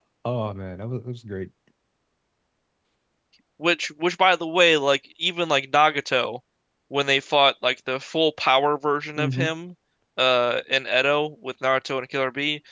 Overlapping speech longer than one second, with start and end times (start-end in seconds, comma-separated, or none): none